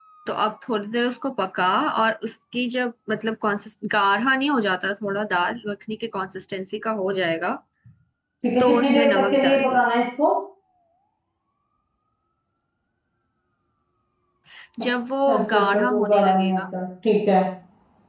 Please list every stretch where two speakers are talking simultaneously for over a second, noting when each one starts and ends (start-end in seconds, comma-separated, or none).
8.6-9.8, 15.2-16.6